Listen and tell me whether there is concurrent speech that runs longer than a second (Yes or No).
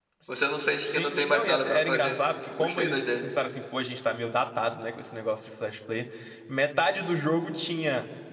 Yes